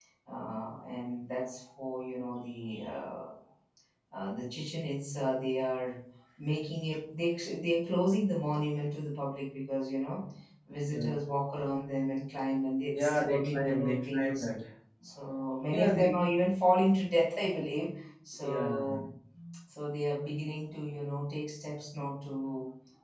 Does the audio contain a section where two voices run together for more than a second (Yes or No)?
Yes